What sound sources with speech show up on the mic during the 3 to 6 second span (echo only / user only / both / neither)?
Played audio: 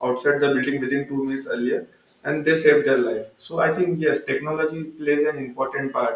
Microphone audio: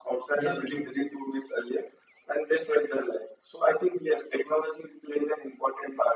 echo only